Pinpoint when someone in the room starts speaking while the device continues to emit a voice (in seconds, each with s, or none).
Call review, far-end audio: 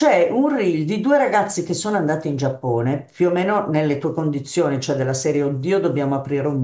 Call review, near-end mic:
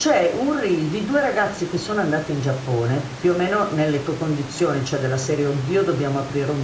none